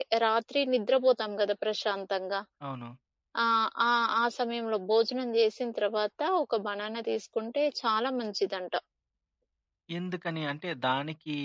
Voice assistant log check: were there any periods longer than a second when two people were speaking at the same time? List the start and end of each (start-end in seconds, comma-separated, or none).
none